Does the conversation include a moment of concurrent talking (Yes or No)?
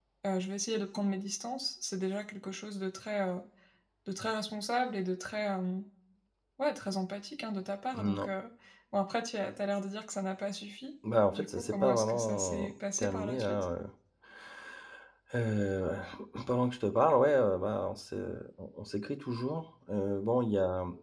Yes